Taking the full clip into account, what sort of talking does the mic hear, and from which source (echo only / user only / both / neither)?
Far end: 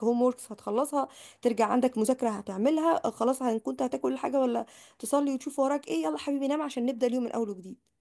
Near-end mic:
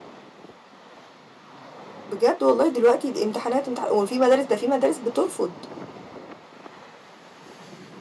user only